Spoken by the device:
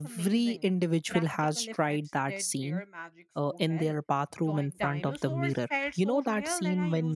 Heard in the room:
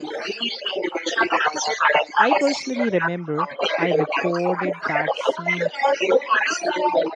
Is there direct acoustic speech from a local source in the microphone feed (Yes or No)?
Yes